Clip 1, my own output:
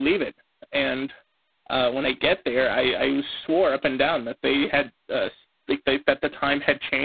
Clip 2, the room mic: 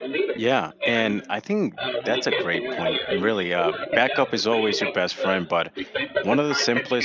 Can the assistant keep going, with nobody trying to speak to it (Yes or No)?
No